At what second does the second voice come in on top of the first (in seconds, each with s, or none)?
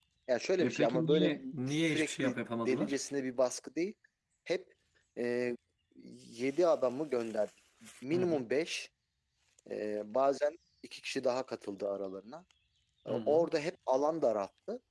0.6 s